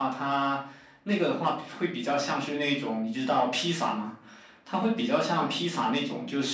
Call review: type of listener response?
listening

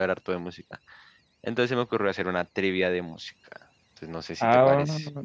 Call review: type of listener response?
taking over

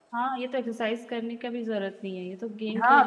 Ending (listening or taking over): taking over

